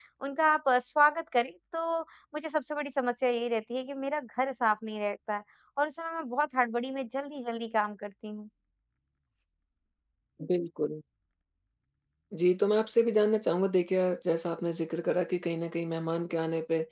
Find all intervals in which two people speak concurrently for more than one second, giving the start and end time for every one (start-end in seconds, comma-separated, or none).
none